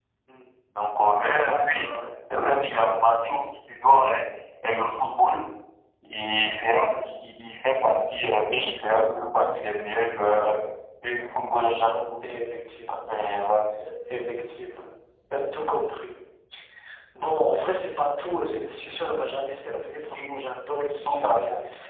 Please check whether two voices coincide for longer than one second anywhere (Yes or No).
No